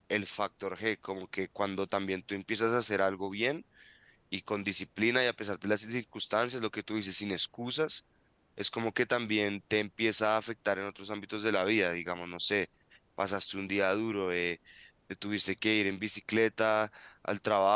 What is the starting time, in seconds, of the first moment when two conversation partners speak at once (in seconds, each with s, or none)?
none